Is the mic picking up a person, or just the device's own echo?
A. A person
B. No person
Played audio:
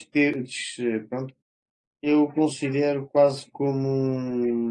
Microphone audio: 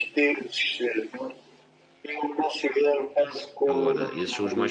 A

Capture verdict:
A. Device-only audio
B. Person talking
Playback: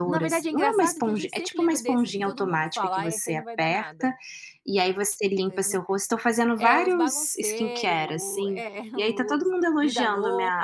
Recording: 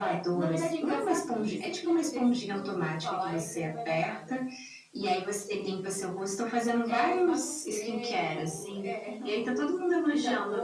A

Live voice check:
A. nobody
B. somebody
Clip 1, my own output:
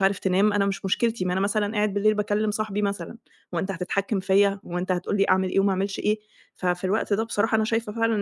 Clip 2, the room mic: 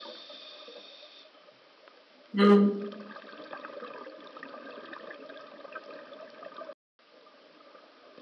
B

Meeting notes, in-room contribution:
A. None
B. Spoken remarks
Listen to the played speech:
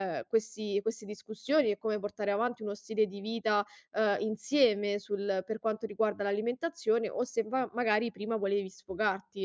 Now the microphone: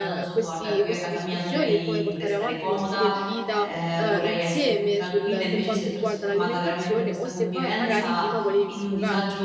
B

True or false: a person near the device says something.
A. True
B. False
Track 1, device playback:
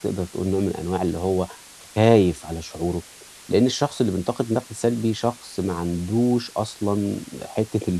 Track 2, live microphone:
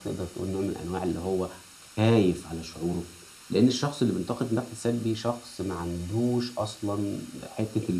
B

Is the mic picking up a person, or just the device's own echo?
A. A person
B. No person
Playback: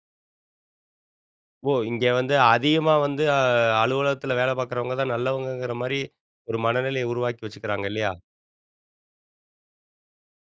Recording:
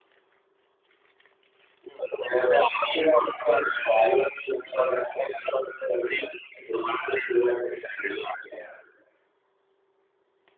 B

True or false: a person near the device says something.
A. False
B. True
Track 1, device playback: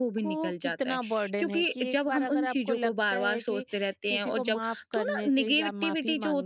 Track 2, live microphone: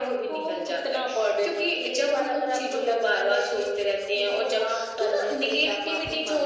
A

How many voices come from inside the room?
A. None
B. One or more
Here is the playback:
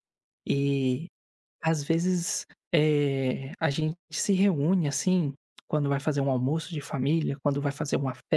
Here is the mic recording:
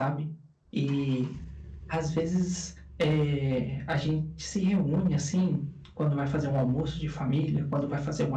A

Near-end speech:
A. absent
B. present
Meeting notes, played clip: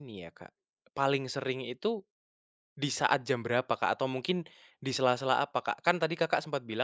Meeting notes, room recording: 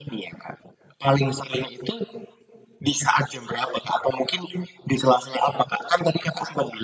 A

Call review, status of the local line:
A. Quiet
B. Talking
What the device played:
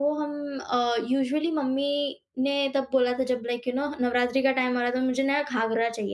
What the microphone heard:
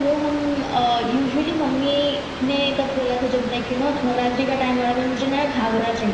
A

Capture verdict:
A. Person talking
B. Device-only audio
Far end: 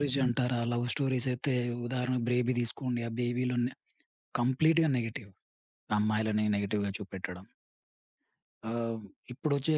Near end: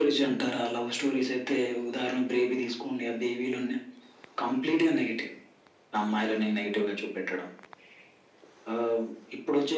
B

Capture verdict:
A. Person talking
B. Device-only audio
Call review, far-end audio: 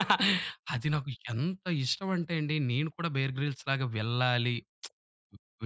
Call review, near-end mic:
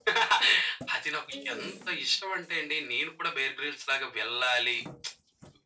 A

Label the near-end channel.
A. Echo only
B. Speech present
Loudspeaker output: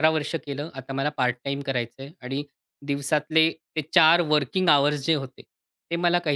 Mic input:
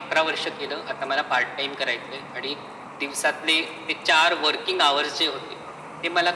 A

